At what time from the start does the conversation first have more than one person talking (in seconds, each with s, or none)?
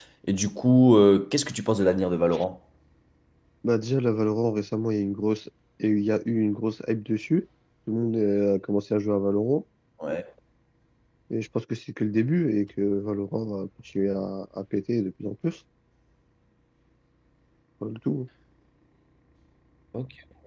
none